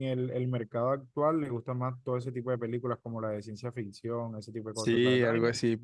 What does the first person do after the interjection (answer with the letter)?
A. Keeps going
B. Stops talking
B